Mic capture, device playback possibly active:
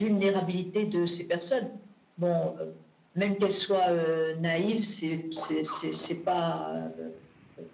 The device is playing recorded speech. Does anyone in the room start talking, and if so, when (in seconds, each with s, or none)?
none